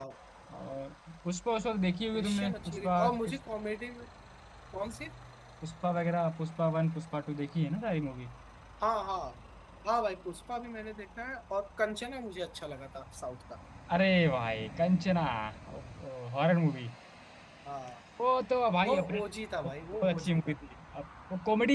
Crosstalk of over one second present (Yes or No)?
Yes